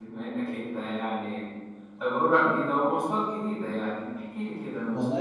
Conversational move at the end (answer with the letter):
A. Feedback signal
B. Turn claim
B